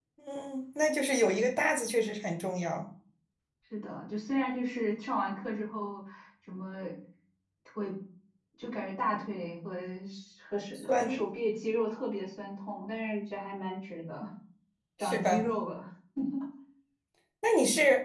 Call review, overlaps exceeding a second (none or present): none